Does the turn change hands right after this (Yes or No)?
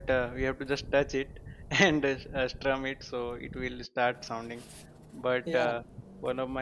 No